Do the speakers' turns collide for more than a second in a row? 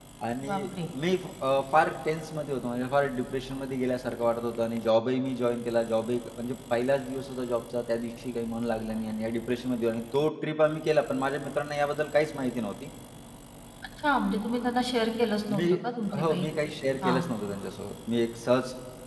No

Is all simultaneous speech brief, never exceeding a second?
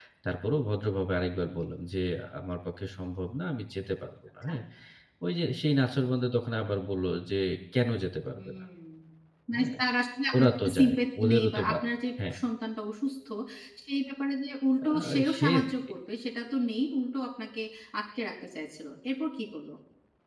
No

